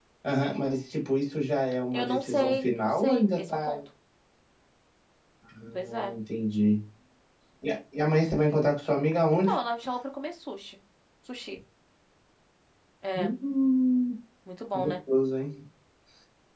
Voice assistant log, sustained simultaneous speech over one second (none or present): present